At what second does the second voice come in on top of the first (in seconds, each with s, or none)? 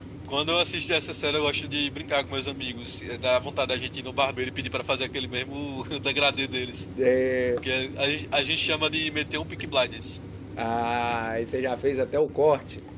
none